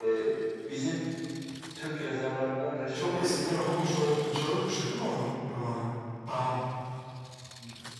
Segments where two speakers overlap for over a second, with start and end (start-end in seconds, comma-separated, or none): 2.9-4.2